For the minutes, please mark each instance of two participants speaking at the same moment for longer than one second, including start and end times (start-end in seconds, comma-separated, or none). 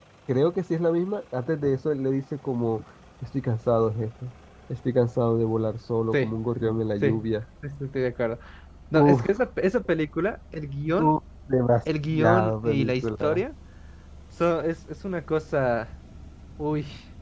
12.1-13.4